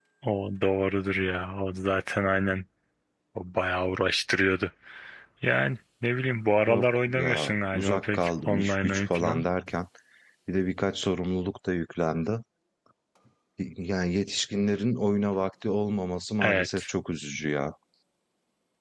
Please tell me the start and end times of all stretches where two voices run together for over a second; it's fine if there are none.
6.7-9.4

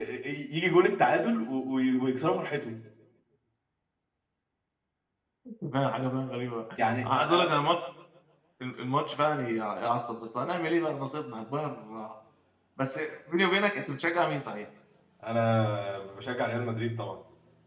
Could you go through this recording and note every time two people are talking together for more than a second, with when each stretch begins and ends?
none

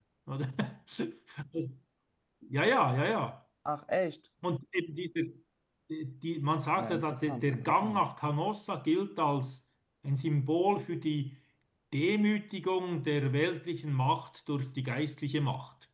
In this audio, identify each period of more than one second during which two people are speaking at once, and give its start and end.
6.8-8.0

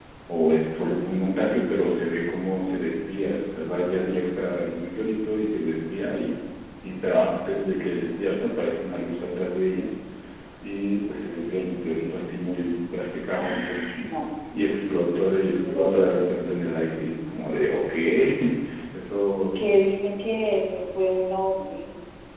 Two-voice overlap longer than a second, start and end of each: 14.7-16.1

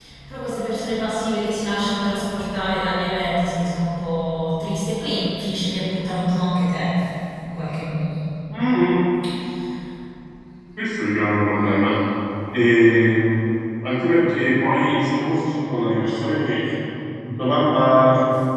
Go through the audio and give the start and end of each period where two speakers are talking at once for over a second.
none

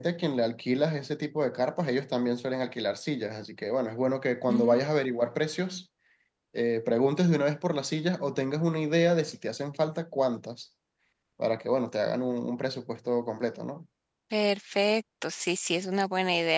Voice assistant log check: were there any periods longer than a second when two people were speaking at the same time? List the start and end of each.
none

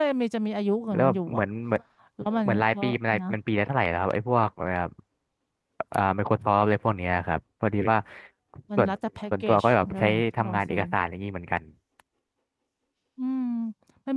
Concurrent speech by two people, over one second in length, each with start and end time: 9.4-10.8

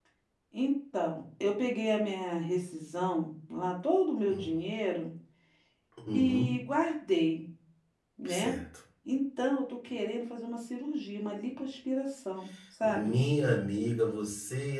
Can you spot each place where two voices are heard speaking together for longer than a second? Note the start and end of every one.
none

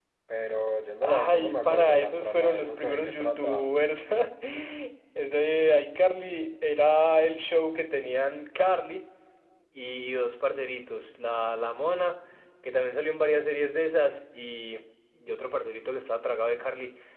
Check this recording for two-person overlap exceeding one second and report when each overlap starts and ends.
1.0-3.7

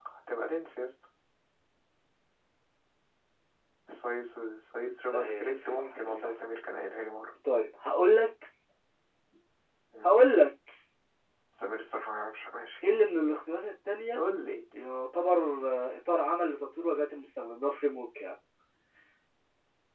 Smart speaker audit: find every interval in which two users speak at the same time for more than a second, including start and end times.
5.1-6.3

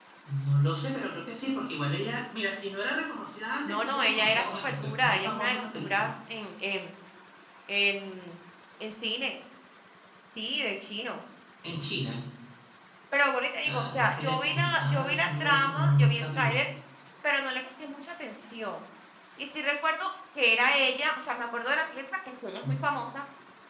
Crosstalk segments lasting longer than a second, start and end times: 3.6-6.1, 13.7-16.6

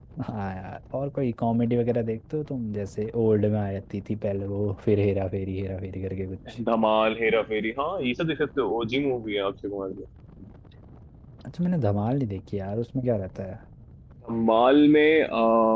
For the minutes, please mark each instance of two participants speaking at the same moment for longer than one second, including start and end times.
none

